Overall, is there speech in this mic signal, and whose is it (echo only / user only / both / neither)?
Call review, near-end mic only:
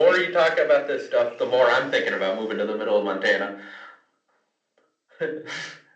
echo only